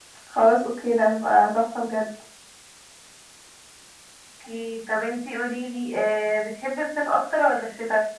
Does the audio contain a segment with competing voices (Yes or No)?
No